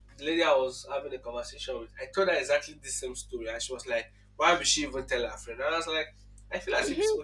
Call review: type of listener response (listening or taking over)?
listening